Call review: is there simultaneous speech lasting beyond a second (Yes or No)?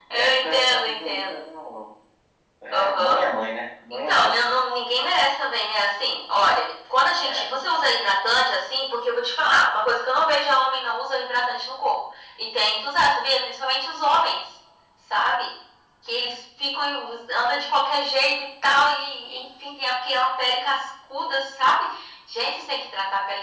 Yes